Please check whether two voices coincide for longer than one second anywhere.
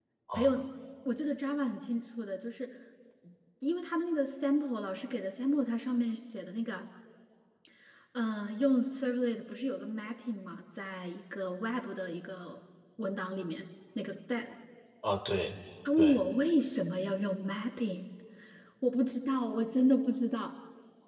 No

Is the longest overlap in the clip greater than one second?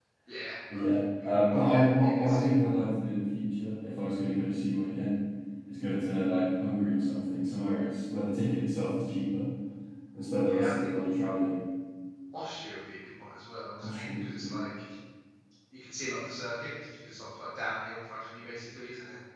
Yes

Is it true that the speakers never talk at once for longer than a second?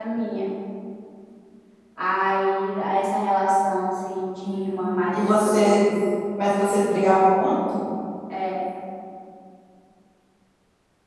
No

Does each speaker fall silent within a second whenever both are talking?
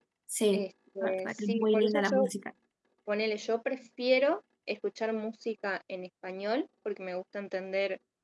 No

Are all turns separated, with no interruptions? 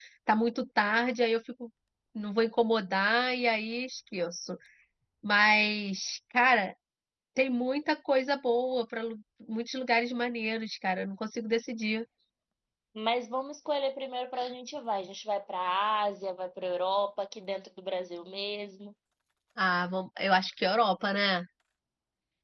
Yes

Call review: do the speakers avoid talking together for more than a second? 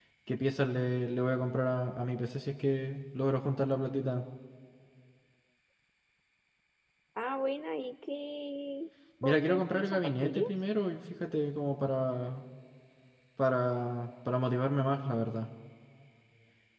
No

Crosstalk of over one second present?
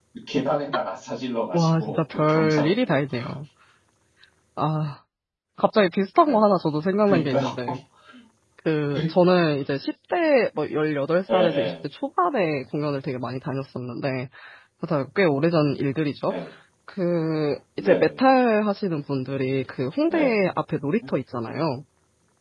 Yes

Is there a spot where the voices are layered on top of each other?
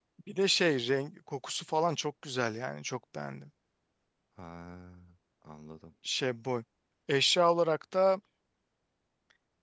No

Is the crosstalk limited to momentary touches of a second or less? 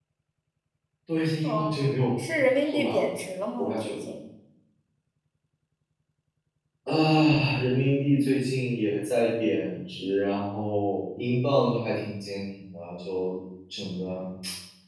Yes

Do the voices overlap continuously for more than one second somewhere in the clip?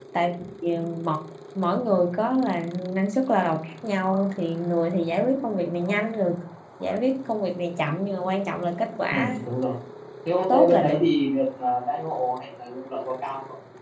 No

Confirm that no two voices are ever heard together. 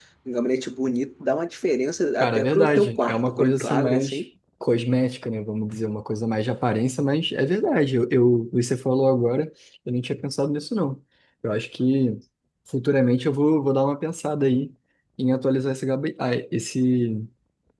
No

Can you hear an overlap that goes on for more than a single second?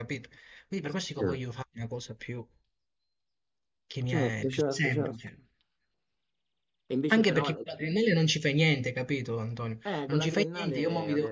Yes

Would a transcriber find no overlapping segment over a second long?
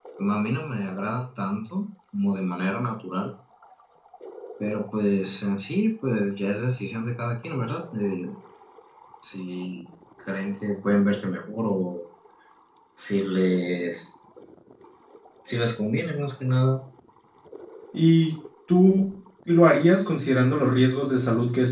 Yes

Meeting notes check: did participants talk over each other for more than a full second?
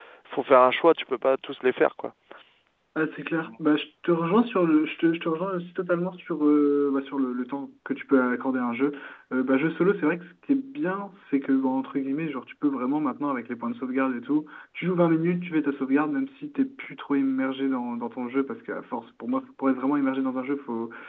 No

